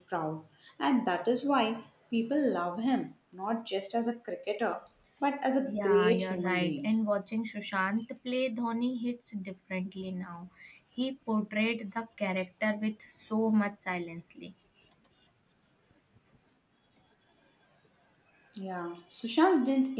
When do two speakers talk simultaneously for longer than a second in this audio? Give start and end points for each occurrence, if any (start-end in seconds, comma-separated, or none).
5.7-6.9